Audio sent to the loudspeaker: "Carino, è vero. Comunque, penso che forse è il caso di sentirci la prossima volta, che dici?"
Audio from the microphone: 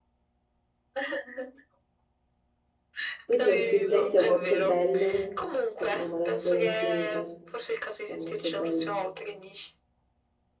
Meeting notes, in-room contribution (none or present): present